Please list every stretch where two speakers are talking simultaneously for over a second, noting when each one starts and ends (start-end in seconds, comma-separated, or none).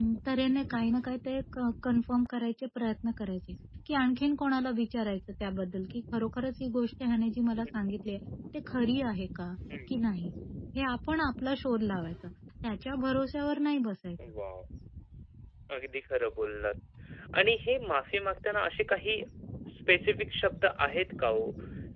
none